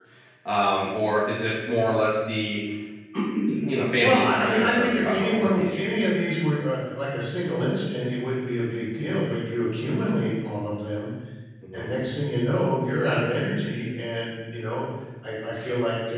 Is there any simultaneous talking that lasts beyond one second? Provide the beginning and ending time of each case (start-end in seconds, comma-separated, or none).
4.0-6.1